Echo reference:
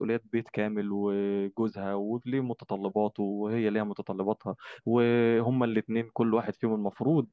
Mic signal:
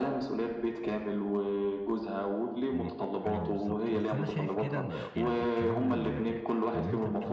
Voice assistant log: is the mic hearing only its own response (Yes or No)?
No